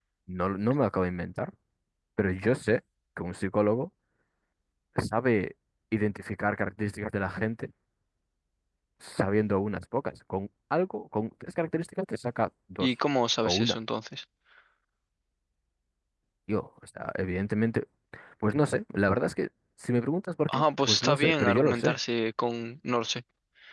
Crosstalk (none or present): present